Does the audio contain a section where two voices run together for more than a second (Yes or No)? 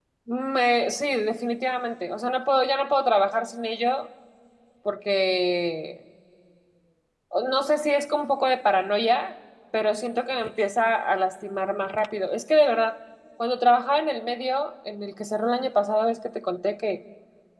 No